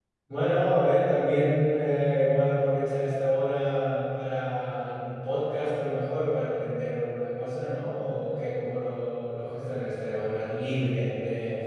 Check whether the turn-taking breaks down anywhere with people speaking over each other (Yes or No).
No